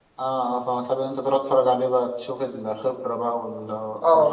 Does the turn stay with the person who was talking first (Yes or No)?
No